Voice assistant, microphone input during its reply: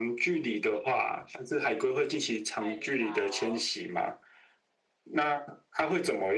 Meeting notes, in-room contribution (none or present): present